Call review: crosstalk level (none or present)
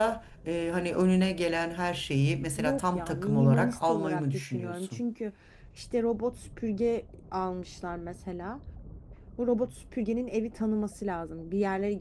present